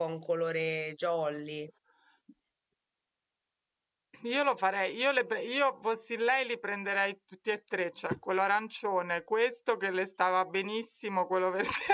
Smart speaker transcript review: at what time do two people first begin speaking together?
none

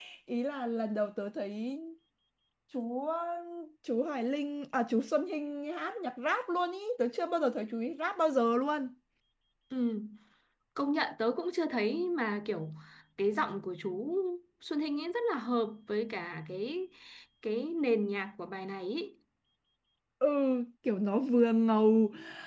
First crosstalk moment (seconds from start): none

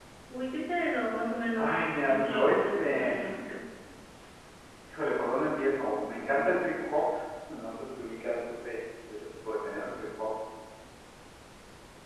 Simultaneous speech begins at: 1.6 s

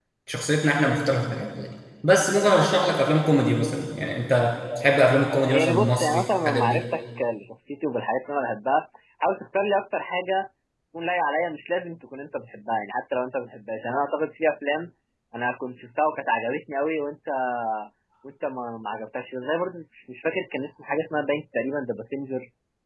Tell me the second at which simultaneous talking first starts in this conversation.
5.5 s

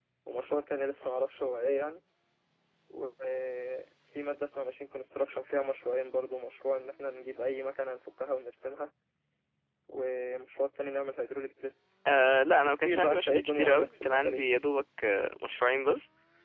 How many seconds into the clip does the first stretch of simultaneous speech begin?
12.7 s

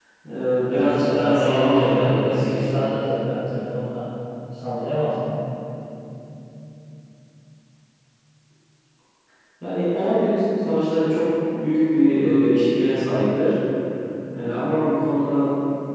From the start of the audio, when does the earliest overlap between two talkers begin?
0.7 s

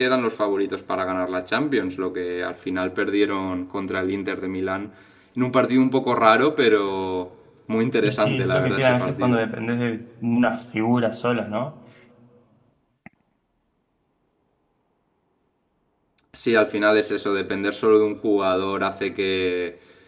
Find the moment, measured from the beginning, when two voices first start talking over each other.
8.0 s

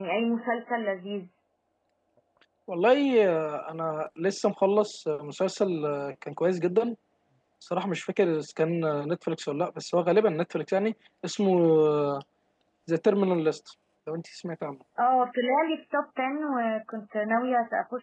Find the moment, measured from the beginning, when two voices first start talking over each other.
none

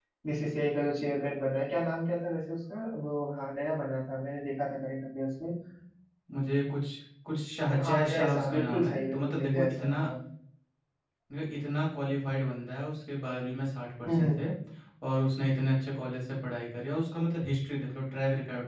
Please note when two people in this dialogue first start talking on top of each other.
7.8 s

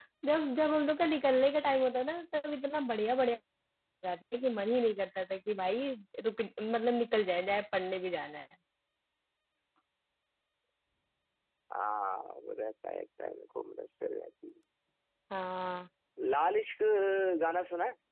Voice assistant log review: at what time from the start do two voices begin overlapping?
none

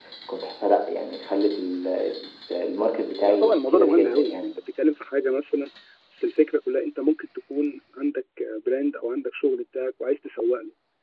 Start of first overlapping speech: 3.2 s

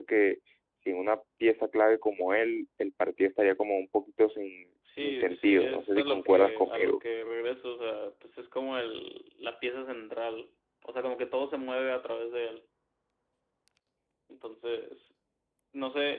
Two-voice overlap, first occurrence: 4.8 s

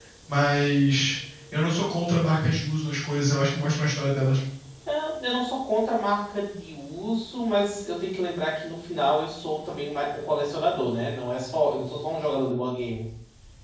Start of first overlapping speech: none

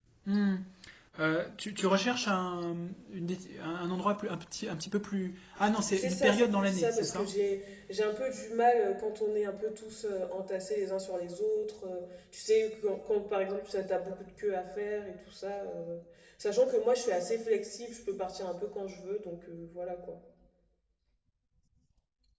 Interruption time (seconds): 5.9 s

